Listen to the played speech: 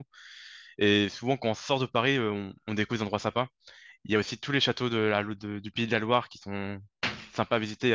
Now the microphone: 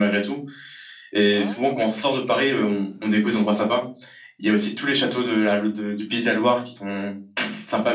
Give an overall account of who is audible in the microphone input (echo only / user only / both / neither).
both